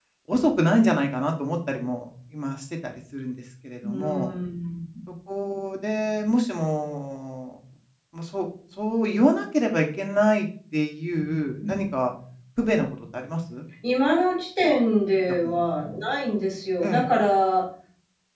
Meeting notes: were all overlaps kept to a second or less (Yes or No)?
Yes